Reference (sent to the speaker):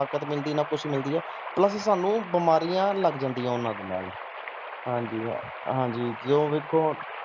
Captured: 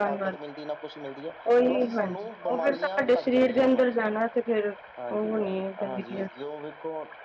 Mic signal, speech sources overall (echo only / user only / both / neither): both